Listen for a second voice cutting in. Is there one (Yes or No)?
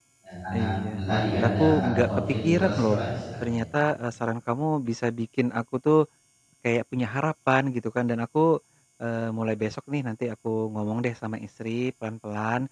Yes